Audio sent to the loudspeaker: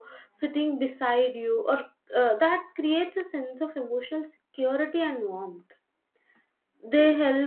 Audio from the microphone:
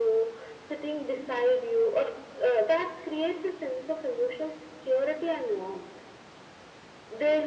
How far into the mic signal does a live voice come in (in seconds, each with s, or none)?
none